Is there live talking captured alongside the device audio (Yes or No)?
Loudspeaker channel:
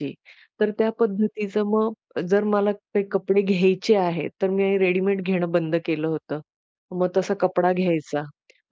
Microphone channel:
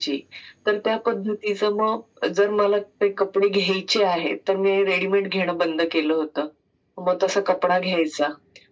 No